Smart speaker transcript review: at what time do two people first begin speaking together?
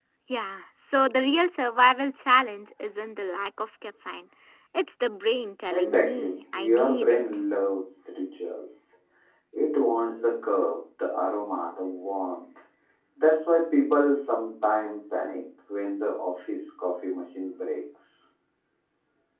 6 s

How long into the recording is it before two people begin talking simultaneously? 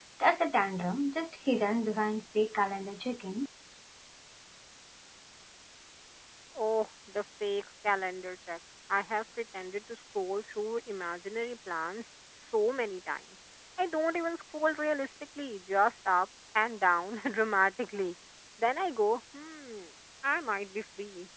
none

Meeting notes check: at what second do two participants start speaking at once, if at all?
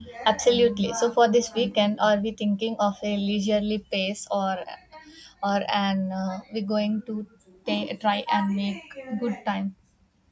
none

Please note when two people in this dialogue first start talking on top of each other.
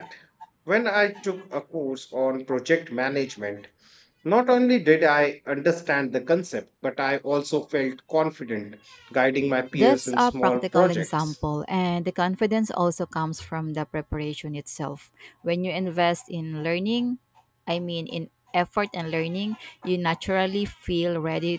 10 s

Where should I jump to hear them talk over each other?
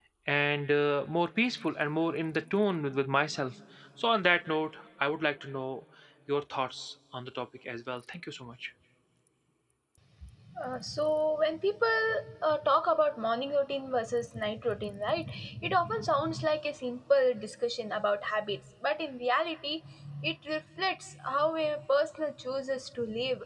none

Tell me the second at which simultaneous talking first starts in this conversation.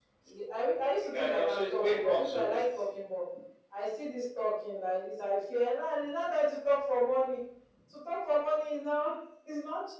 1 s

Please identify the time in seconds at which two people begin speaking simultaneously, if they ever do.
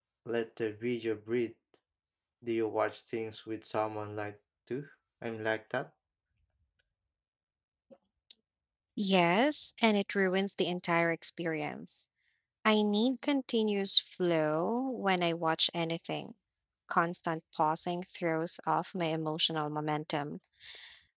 none

